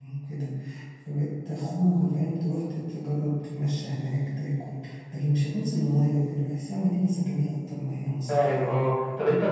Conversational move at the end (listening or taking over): taking over